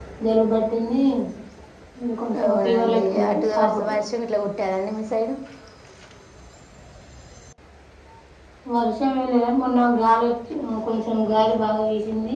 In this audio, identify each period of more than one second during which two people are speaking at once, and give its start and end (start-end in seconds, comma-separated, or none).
2.5-3.9